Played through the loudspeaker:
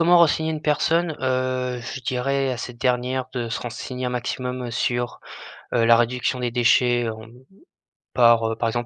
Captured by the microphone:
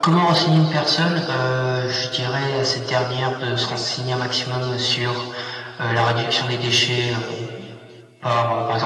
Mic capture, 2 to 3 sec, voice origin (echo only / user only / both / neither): echo only